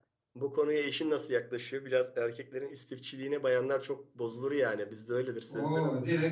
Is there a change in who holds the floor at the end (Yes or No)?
Yes